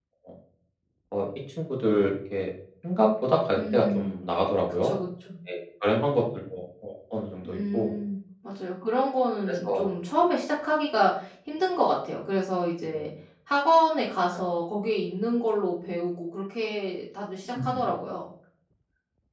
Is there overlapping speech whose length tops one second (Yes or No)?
No